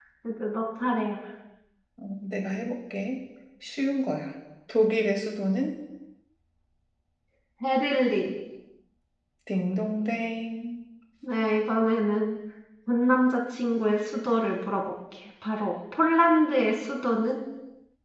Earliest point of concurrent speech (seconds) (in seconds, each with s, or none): none